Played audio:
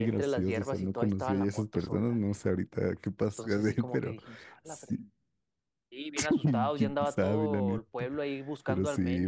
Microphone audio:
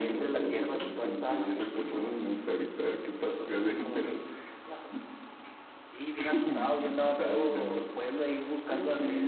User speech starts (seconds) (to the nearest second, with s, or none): none